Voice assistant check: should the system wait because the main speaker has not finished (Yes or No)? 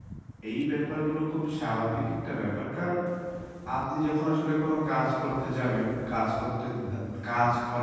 Yes